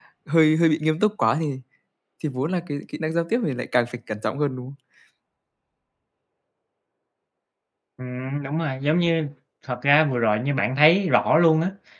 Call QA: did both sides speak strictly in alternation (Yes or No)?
Yes